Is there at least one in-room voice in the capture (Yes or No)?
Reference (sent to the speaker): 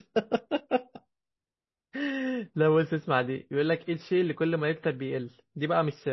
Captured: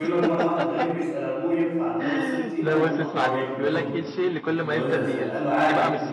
Yes